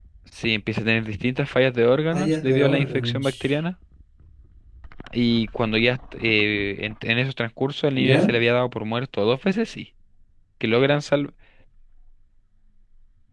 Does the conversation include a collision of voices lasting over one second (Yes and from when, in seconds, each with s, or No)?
Yes, from 2.1 s